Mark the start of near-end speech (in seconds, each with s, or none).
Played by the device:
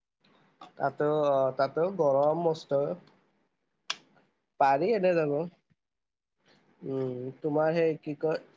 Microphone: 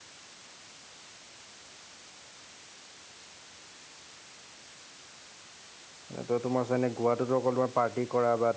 6.1 s